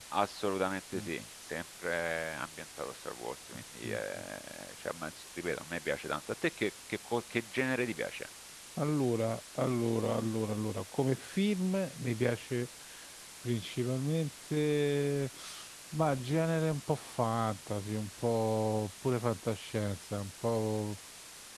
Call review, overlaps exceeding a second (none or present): none